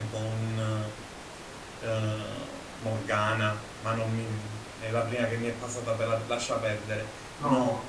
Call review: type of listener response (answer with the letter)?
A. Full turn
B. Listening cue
B